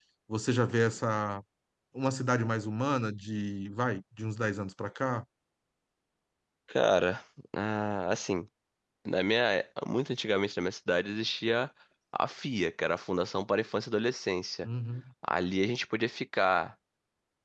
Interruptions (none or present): none